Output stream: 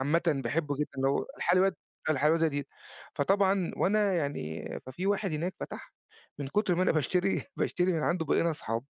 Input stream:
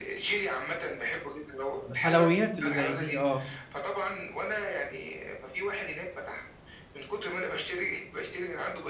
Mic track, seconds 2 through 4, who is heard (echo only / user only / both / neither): both